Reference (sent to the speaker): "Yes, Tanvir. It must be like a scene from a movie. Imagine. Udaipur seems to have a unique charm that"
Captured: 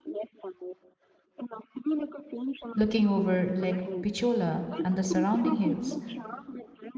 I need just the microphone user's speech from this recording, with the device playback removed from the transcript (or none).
looking over Lake Picciola and the surrounding hills,